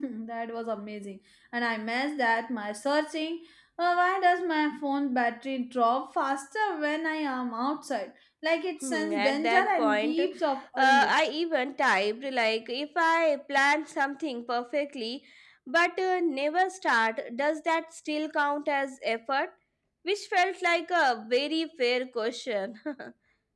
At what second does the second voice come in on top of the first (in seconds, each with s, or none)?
8.8 s